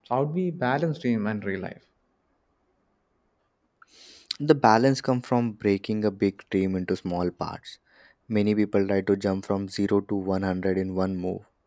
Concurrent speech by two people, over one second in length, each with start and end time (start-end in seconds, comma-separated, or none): none